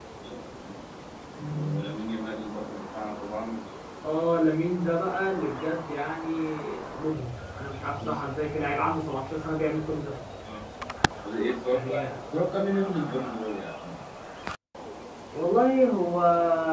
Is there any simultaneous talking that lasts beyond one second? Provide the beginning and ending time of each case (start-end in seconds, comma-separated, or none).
none